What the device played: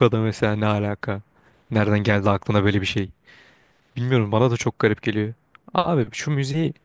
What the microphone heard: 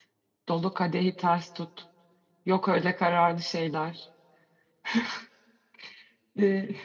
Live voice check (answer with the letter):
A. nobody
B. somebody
B